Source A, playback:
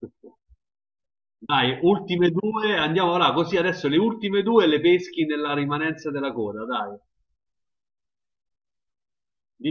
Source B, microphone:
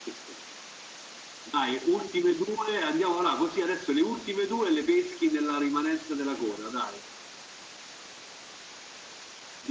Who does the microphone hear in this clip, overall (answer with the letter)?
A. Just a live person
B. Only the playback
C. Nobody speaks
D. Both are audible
B